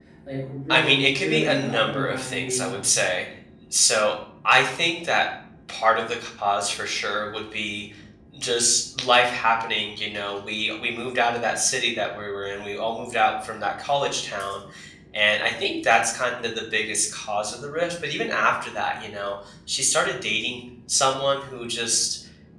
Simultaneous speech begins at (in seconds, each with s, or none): 0.7 s